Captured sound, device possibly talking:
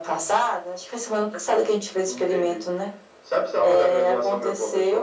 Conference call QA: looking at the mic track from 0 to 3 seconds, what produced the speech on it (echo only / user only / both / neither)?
echo only